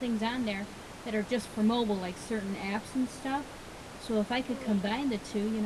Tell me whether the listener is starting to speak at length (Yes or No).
No